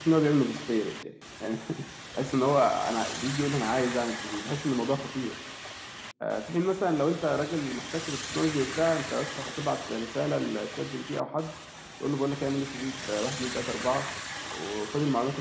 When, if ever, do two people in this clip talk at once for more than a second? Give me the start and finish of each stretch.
none

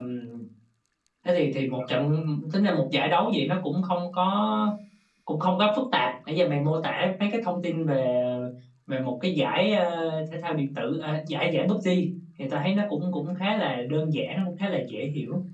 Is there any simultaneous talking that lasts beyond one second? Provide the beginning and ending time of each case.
none

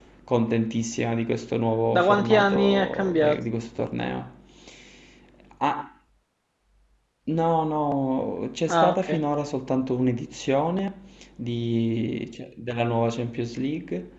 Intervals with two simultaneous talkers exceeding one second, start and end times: 1.9-3.4

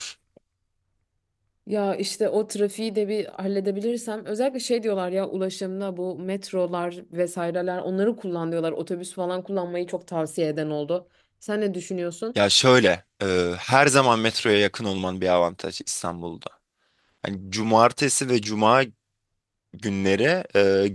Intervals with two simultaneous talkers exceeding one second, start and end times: none

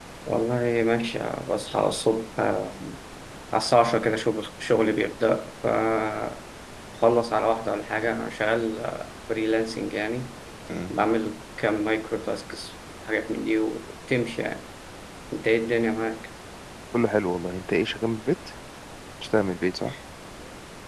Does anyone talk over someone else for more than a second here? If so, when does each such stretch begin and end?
none

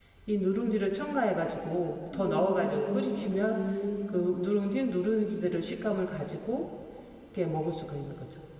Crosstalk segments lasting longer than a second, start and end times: 2.1-3.6

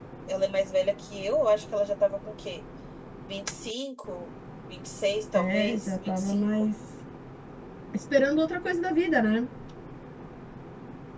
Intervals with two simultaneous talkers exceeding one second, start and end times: 5.4-6.6

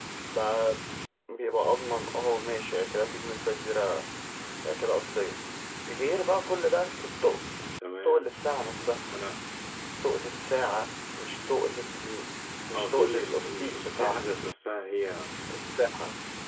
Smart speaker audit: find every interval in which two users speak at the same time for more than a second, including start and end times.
12.7-14.3

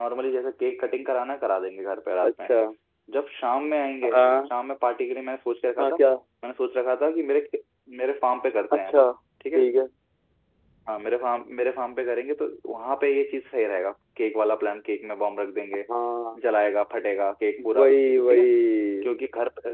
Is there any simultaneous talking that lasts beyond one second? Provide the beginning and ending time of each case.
none

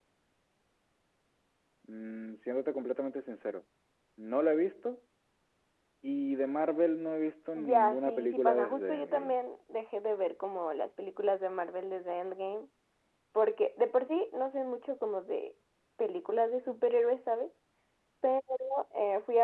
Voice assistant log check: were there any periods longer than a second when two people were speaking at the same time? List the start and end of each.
7.5-9.4

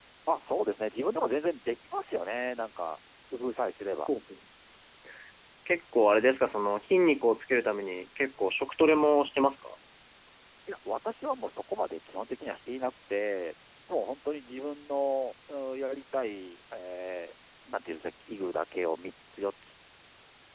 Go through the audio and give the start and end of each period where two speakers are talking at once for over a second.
none

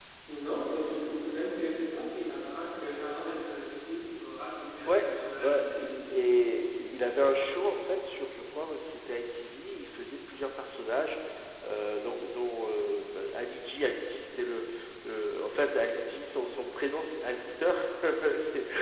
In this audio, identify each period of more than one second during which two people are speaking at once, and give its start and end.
none

